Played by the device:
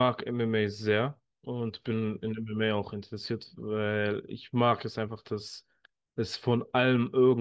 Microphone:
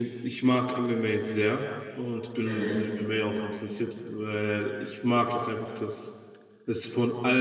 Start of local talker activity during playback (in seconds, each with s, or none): 2.4 s